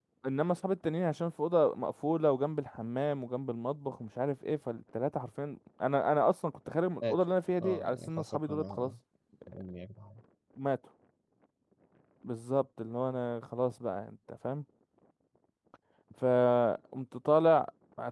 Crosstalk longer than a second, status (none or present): present